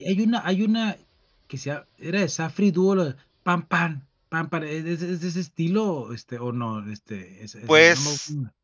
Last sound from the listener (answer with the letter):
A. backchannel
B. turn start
B